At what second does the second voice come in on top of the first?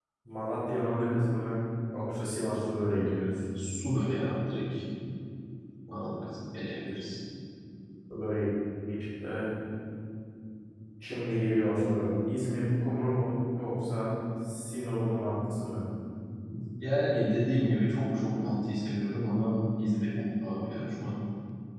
none

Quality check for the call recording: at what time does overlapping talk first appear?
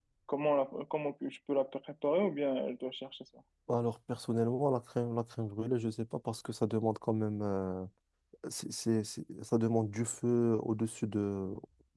none

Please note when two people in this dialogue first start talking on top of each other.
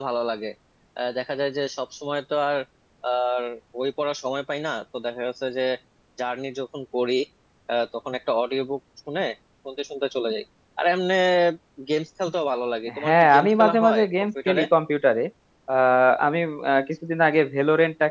12.9 s

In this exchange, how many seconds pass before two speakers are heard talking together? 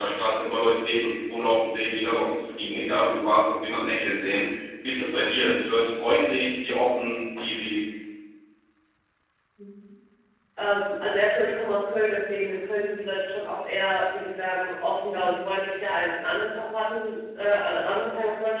none

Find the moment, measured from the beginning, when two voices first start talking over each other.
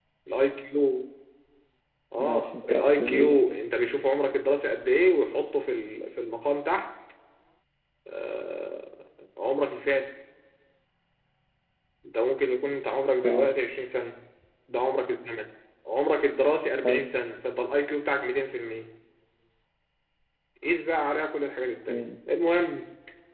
2.2 s

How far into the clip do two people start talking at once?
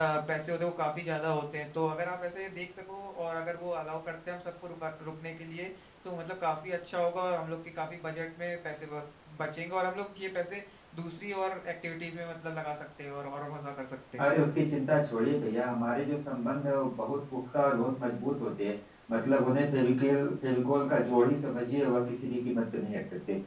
none

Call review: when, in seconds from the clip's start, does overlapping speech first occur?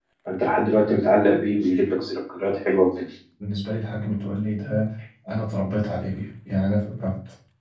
none

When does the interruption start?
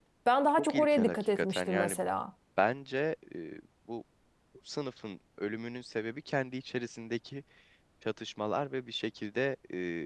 0.6 s

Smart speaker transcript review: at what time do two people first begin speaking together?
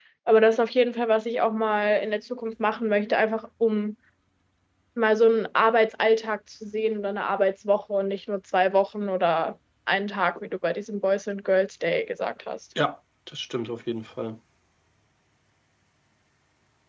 none

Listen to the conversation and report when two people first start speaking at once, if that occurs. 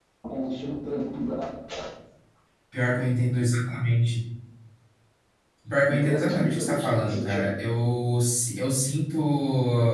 5.9 s

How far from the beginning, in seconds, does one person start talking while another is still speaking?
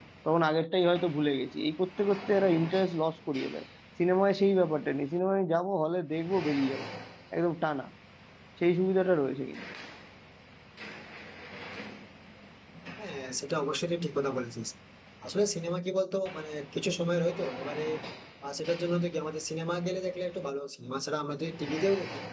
none

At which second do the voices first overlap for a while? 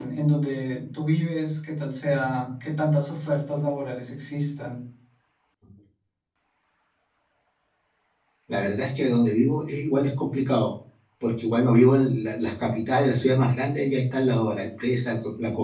none

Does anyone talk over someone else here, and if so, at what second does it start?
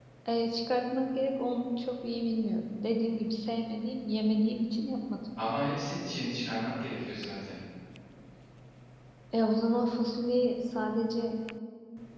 none

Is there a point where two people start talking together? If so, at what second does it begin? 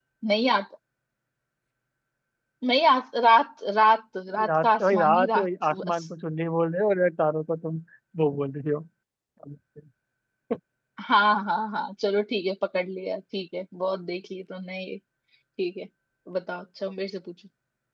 4.6 s

